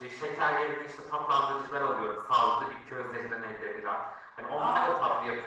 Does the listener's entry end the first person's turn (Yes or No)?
No